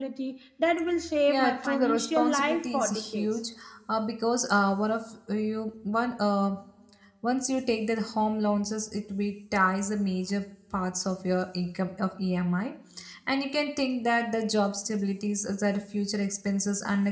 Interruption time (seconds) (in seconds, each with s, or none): 1.3 s